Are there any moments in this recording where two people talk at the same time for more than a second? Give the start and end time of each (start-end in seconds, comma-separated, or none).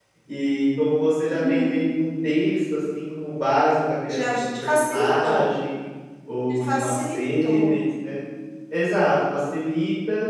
4.1-5.4, 6.5-7.8